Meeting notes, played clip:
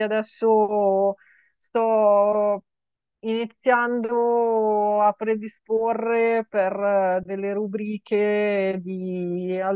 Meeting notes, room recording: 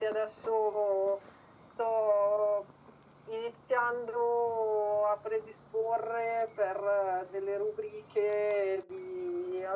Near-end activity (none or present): none